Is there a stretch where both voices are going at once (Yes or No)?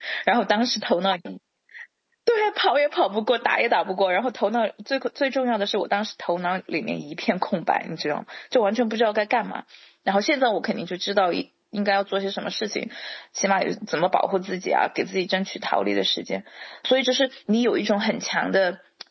No